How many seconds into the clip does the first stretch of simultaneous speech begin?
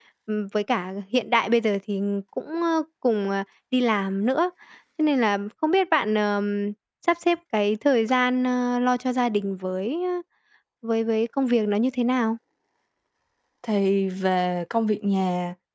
none

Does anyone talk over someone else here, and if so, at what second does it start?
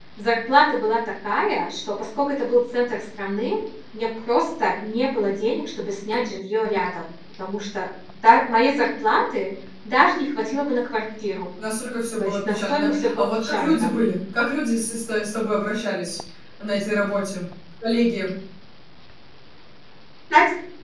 12.2 s

